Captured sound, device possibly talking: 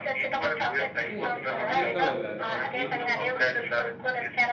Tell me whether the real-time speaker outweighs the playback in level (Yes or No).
No